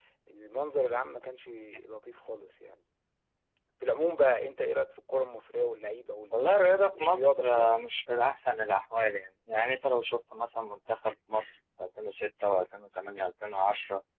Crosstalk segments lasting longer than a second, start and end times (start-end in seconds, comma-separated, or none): 6.3-7.9